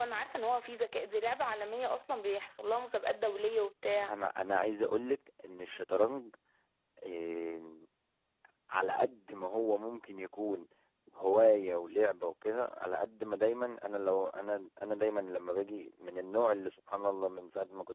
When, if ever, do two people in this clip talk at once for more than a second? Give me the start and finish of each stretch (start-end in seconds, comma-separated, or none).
none